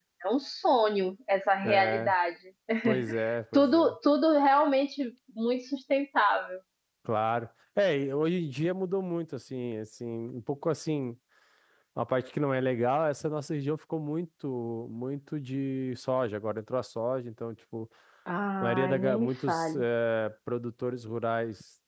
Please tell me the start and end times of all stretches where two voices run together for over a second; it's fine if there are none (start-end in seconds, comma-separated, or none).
18.6-19.8